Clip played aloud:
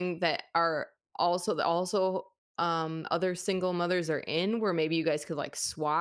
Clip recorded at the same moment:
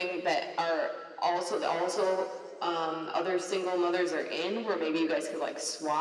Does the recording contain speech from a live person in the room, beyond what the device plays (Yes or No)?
No